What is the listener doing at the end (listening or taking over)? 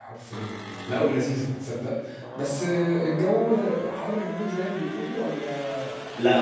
taking over